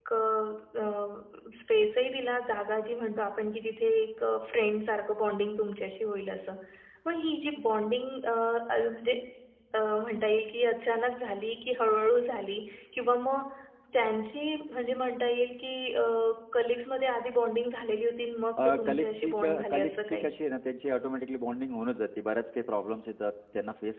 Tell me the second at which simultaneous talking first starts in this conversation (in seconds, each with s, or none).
18.6 s